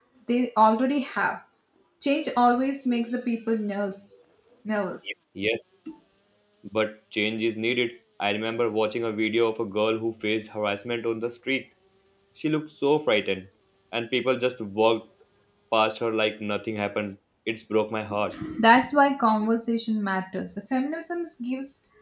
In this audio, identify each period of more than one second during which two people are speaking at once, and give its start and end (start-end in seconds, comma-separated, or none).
none